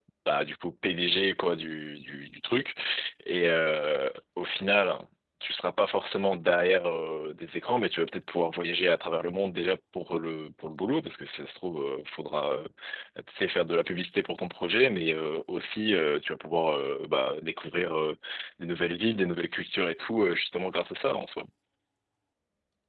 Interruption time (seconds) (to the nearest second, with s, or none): none